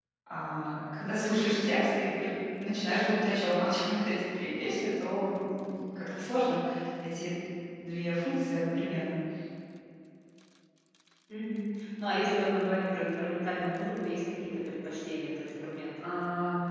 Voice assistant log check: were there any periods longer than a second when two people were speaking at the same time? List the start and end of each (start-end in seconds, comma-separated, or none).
none